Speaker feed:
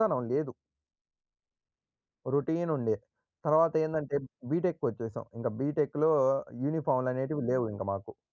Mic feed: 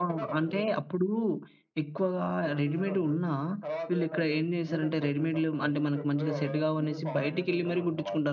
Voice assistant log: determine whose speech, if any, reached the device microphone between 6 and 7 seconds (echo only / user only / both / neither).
both